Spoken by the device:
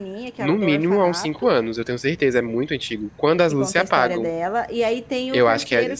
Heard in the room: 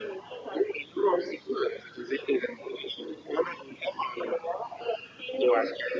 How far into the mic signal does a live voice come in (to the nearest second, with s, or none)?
none